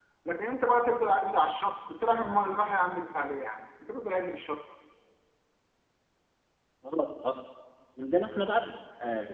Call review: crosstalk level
none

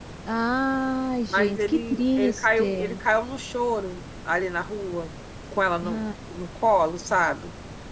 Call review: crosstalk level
present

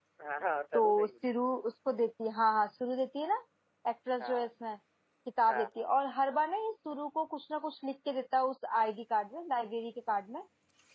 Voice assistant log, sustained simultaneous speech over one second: none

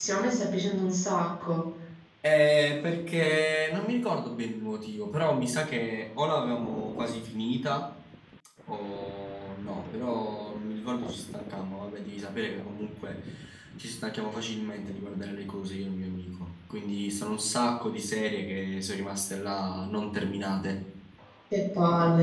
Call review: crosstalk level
none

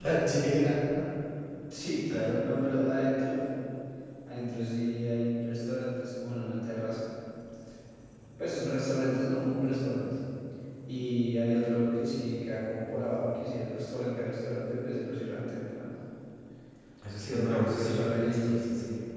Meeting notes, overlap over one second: present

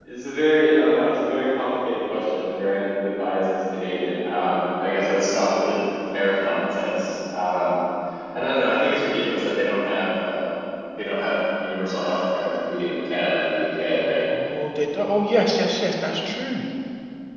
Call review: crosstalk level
none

